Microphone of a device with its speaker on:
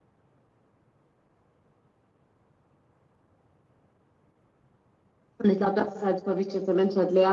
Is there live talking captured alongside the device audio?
Yes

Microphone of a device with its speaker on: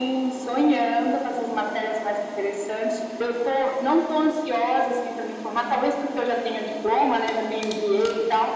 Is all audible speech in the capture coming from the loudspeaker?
Yes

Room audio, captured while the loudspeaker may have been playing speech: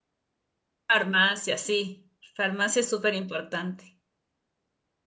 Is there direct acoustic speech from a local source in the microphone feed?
Yes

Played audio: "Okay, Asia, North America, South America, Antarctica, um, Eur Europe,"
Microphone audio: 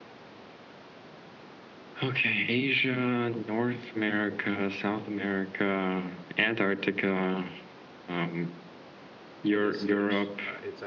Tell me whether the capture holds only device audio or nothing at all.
No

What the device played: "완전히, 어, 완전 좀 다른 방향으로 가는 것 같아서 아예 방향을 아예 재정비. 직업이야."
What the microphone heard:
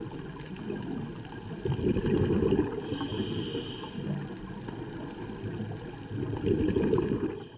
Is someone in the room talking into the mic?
No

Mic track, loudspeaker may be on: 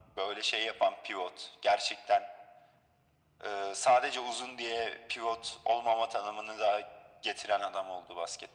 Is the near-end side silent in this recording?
Yes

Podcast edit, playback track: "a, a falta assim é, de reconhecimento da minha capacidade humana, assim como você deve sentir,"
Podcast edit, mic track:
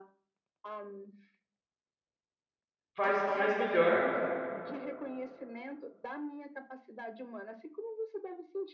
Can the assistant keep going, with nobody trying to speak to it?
No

